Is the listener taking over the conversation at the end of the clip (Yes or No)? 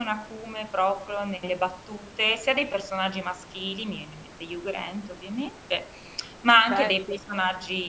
No